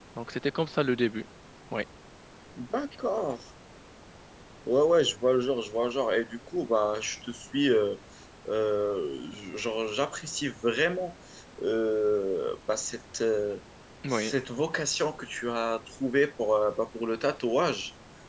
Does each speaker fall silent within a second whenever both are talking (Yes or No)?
Yes